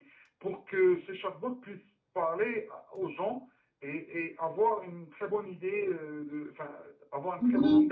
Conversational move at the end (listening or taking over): taking over